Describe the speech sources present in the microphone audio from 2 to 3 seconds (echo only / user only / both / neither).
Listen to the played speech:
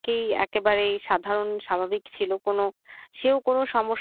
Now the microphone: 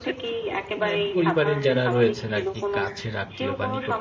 both